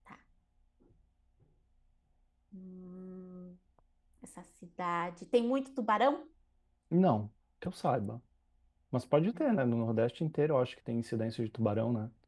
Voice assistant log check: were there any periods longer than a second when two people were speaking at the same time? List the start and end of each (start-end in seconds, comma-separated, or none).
none